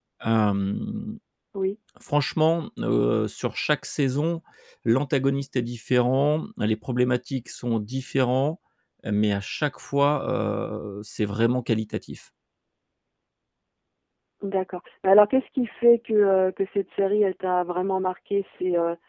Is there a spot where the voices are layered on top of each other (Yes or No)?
No